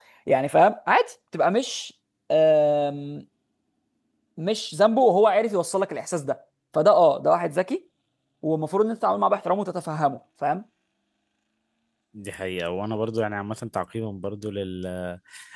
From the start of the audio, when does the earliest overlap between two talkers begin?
none

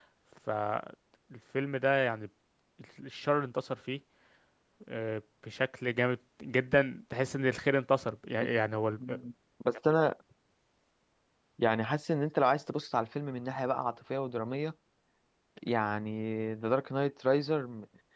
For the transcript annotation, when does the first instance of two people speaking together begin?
none

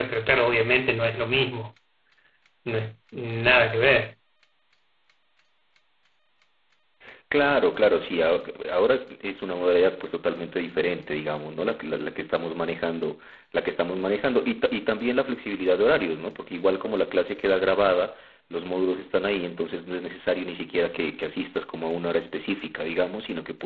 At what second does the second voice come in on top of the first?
none

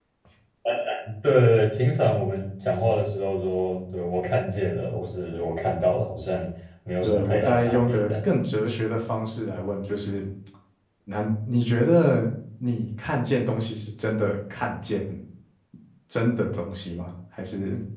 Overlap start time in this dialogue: 7 s

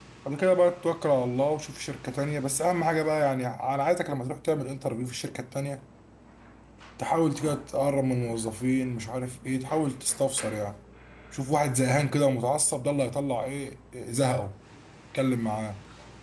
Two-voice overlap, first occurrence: none

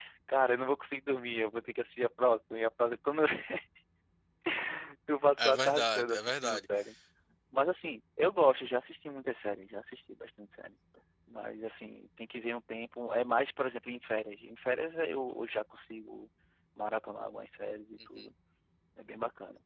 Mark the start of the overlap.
5 s

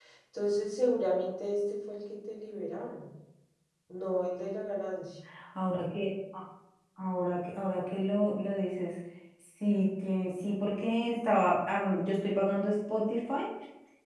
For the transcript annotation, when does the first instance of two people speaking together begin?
none

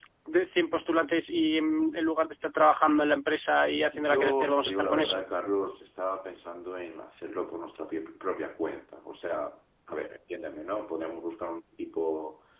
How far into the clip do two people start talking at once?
4 s

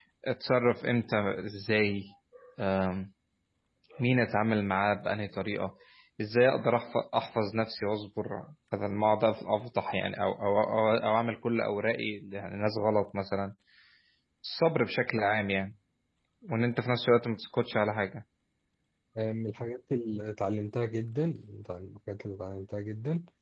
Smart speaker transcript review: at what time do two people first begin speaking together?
none

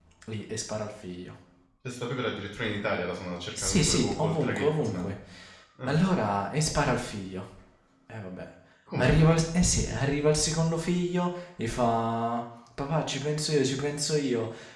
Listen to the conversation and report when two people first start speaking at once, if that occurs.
4 s

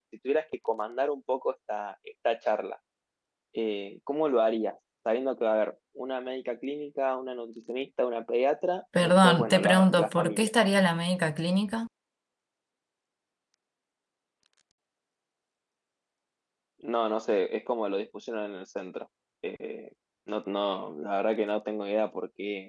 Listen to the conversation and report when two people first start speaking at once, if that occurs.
9 s

